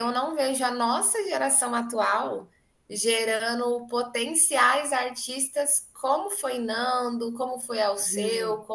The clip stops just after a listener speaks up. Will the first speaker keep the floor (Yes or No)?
Yes